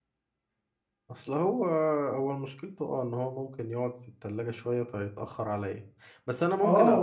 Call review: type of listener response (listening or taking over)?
taking over